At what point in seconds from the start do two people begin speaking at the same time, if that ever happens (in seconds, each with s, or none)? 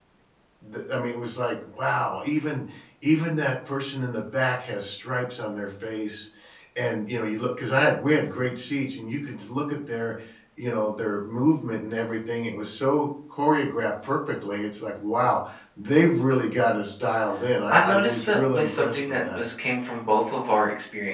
17.7 s